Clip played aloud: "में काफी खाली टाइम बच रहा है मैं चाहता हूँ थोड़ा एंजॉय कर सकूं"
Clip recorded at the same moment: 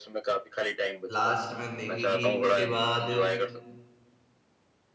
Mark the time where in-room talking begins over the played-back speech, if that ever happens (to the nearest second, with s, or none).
1 s